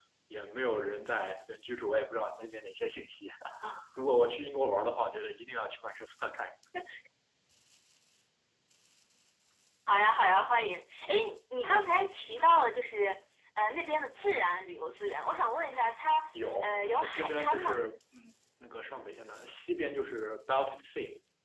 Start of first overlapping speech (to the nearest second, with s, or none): 17 s